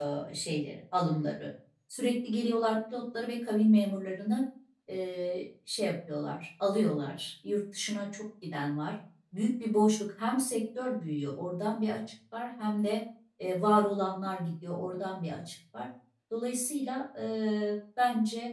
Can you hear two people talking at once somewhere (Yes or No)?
No